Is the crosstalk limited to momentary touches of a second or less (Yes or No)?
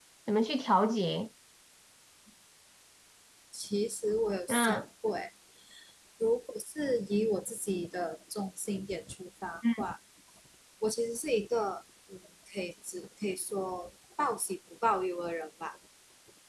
Yes